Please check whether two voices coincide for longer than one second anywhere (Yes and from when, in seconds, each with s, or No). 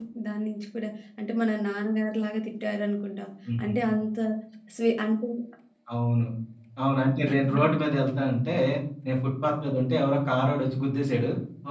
No